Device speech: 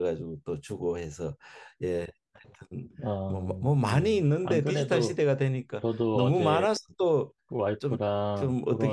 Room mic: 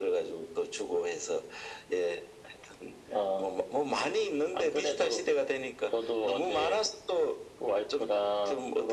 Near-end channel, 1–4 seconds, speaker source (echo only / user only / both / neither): echo only